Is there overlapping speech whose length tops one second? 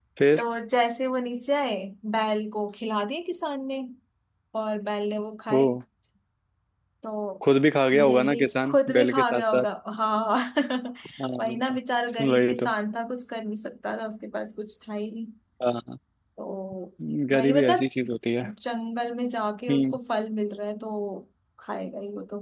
Yes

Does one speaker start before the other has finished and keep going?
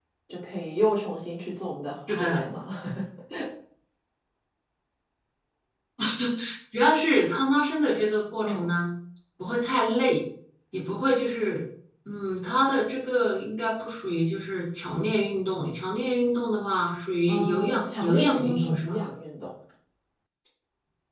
Yes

